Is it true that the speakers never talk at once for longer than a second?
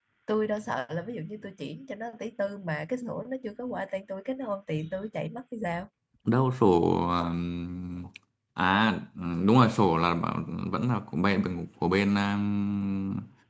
Yes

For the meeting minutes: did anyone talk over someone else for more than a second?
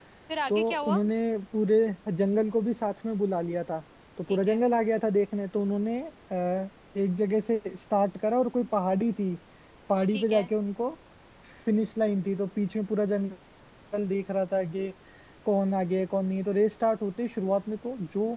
No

